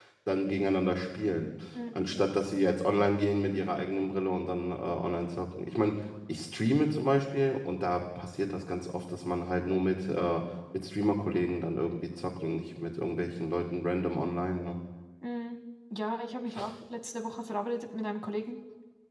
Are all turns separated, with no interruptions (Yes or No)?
Yes